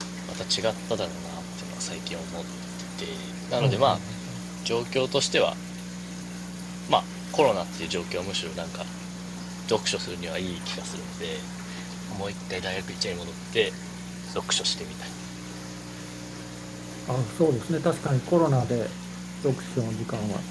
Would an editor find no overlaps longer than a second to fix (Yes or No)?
Yes